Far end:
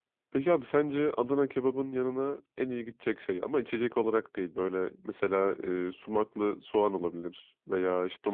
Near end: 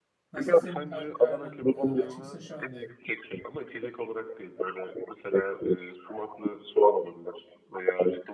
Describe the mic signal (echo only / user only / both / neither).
both